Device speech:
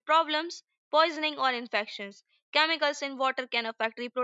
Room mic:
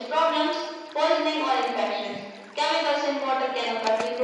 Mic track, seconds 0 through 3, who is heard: echo only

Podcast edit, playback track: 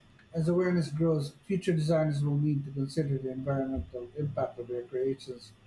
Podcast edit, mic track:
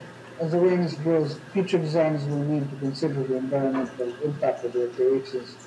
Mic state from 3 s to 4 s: echo only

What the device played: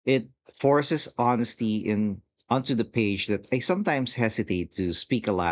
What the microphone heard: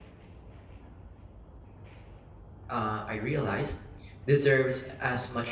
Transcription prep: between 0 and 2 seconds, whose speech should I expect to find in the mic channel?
neither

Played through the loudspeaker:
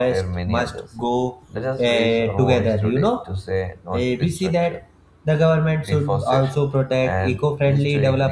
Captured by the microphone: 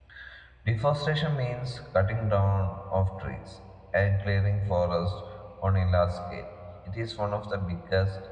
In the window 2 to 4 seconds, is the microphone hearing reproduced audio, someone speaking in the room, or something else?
user only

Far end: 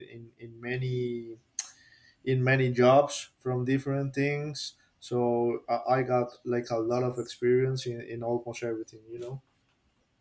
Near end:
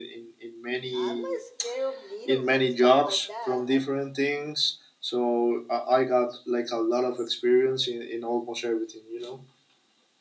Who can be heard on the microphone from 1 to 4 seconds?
both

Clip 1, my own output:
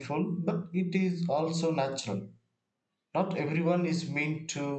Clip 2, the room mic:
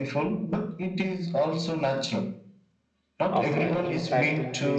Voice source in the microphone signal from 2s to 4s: both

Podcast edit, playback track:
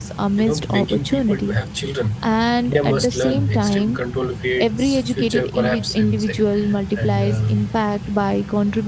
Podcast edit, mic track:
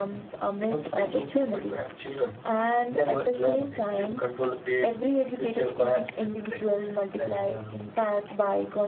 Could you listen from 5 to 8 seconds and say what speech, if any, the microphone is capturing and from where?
echo only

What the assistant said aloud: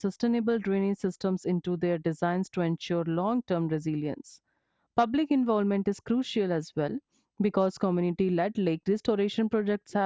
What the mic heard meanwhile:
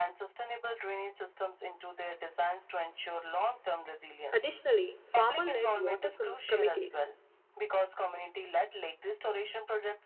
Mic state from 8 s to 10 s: echo only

